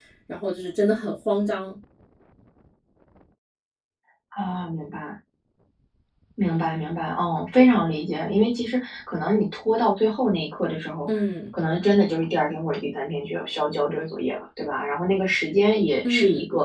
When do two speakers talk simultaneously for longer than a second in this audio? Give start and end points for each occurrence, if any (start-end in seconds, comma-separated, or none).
none